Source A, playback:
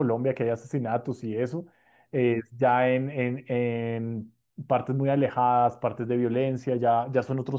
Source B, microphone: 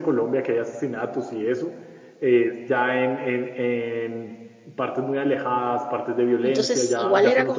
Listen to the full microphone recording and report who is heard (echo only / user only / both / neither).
both